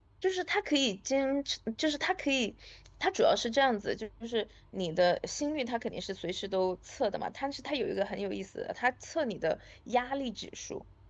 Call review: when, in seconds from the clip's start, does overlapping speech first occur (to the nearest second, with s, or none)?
none